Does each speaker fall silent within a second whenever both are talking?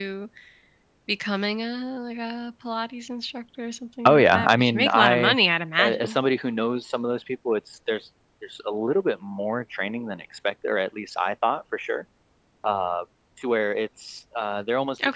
No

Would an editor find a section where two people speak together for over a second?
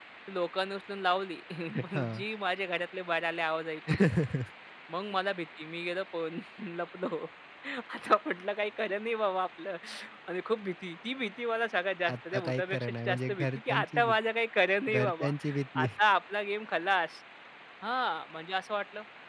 Yes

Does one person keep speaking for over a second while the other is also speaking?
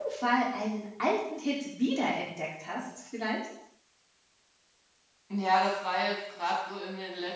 No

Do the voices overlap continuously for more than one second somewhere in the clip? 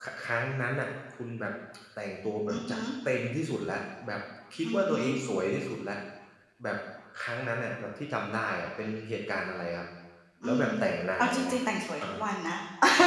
No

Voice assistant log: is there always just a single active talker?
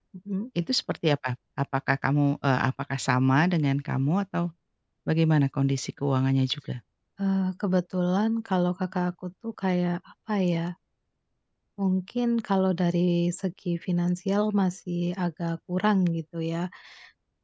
Yes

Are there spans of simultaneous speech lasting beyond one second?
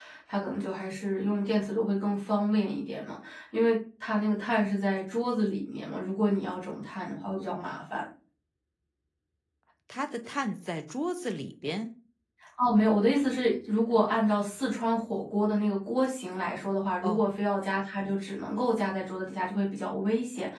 No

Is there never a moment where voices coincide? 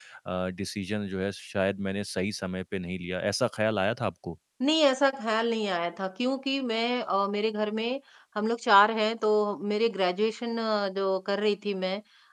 Yes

